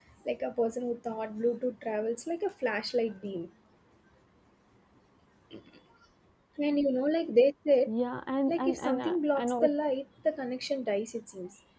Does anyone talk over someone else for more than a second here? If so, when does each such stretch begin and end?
8.5-9.7

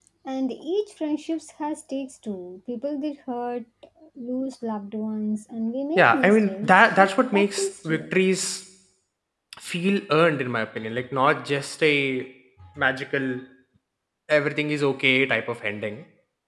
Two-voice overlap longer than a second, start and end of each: 6.0-8.1

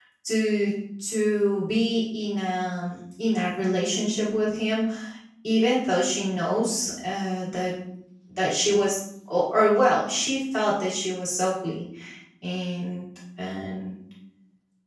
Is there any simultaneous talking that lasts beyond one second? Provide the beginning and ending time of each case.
none

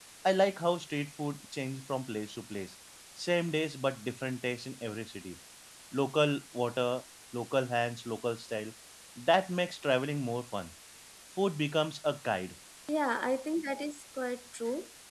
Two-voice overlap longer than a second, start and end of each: none

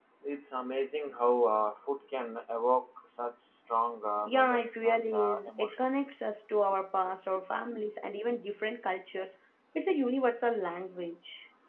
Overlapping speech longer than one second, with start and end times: 4.3-5.8

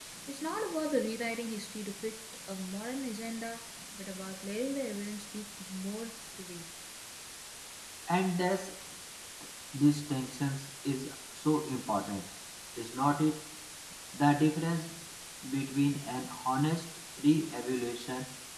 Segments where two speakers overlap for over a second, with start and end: none

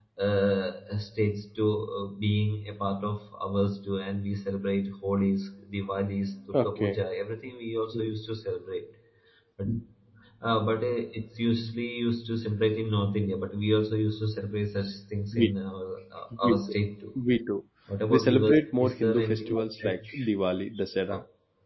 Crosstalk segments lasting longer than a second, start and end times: 18.1-20.0

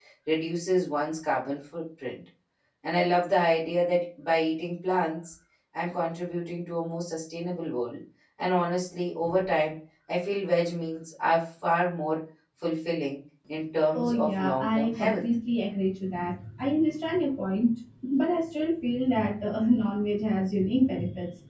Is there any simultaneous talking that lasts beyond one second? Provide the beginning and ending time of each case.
13.9-15.2

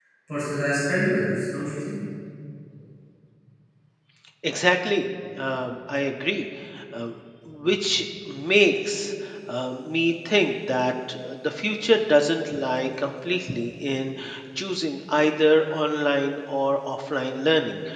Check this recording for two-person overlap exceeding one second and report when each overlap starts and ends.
none

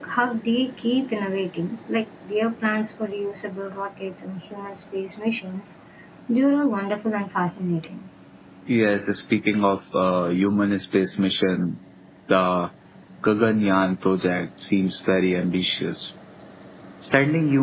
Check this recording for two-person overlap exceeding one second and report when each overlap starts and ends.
none

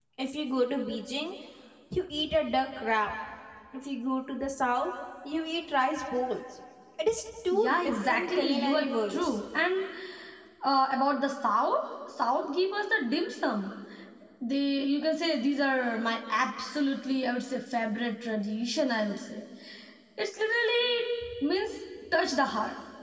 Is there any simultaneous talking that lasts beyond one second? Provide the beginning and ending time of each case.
7.5-9.3

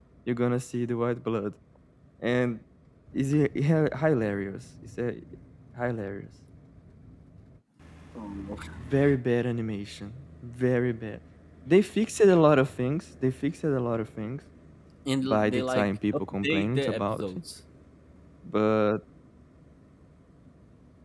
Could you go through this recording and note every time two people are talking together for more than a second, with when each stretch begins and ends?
15.2-17.2

